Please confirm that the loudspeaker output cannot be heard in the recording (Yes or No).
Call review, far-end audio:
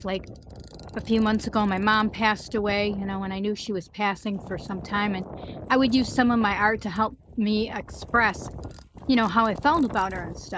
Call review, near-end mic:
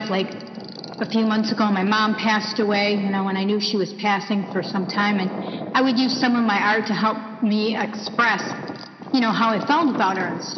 No